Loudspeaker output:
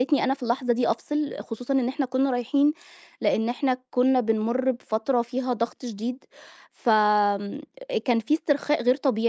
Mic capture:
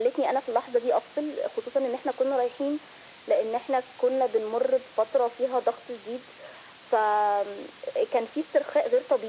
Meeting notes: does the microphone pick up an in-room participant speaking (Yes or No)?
No